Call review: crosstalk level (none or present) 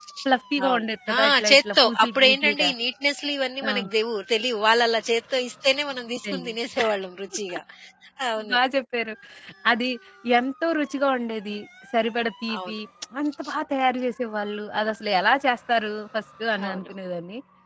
present